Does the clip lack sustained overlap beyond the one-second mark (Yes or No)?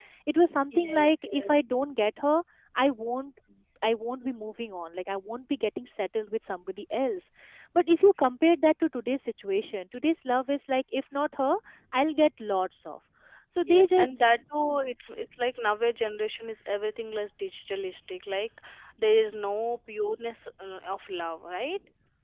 No